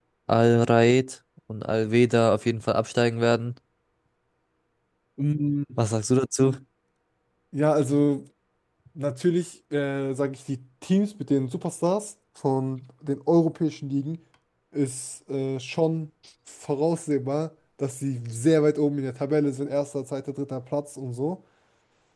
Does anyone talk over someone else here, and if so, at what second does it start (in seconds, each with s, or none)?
none